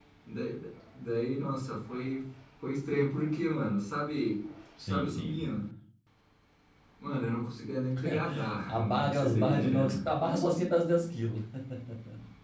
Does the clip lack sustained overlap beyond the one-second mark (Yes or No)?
No